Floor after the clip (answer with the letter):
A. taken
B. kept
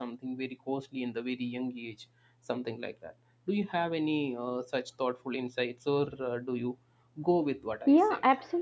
A